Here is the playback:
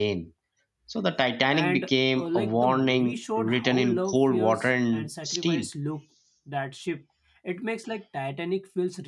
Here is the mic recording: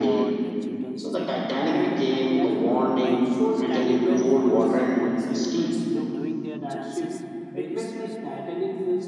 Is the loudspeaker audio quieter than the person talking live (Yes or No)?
No